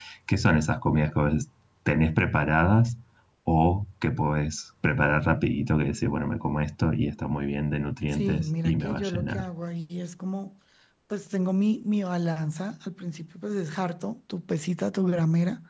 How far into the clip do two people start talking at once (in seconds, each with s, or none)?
8.1 s